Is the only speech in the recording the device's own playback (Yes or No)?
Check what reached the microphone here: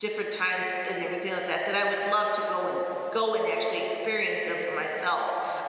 No